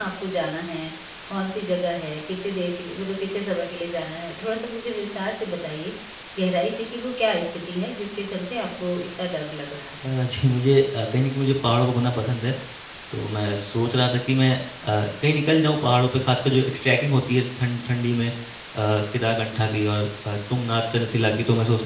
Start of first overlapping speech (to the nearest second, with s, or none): none